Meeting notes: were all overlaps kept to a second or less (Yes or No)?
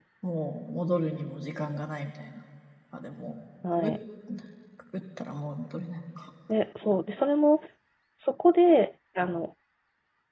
Yes